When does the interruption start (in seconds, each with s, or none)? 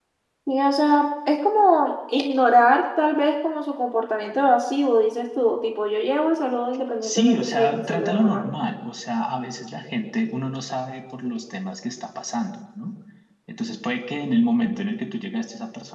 7.0 s